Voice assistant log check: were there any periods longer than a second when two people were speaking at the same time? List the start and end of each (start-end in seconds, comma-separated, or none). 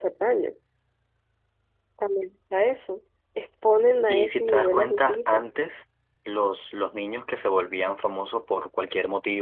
4.1-5.4